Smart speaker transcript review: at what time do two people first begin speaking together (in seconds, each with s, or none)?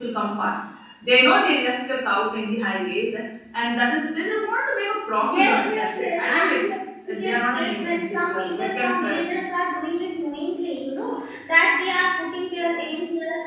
5.2 s